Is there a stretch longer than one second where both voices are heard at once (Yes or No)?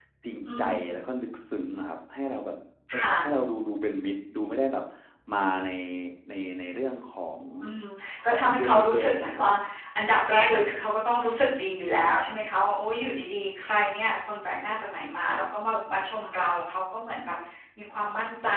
Yes